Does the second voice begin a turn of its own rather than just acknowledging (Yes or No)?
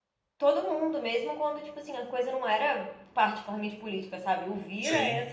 No